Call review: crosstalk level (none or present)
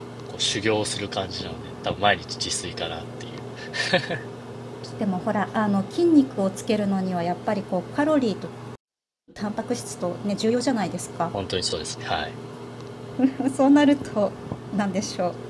none